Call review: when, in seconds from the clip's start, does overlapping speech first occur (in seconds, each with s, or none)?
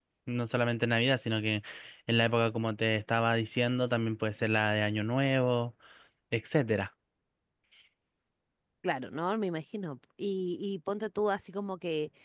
none